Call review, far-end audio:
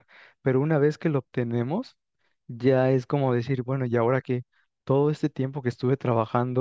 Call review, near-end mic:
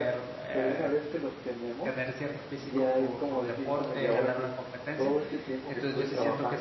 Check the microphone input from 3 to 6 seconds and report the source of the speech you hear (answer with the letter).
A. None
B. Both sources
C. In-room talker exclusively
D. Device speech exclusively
B